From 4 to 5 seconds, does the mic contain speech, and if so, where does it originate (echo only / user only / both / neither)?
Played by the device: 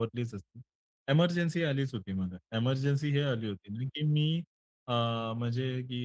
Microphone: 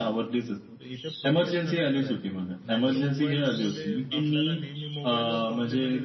both